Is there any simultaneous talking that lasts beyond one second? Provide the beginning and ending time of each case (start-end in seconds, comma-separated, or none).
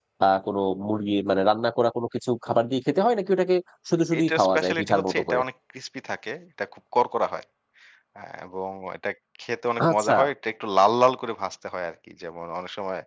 4.2-5.4